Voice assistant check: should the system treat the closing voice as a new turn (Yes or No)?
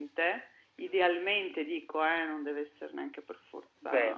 Yes